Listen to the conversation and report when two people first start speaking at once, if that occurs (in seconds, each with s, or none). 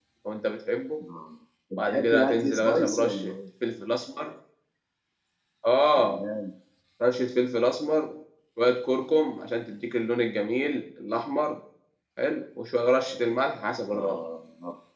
1.8 s